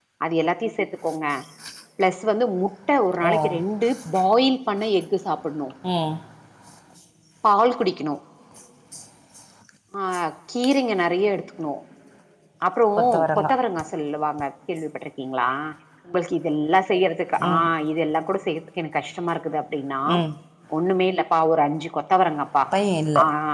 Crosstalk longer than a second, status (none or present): none